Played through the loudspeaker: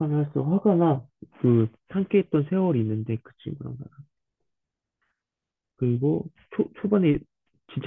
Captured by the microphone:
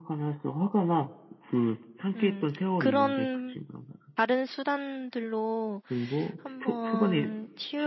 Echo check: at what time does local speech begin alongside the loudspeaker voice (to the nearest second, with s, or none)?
2 s